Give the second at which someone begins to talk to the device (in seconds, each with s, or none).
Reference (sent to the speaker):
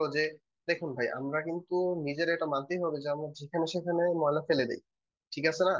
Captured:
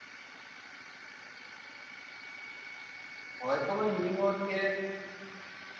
3.4 s